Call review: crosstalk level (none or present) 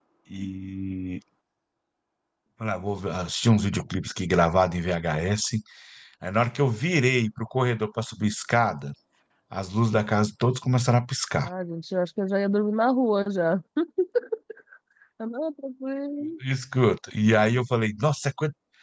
none